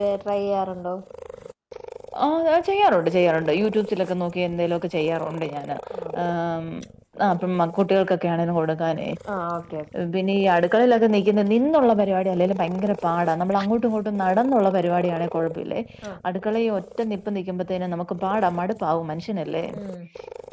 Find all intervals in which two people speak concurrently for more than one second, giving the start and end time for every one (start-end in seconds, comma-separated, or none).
none